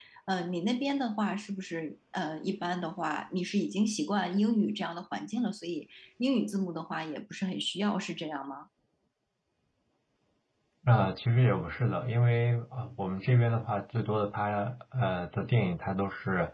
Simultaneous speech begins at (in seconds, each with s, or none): none